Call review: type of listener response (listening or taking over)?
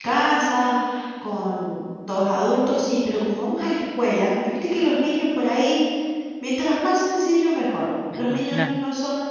listening